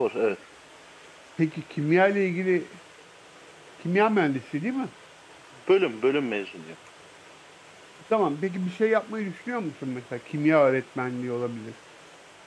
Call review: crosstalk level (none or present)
none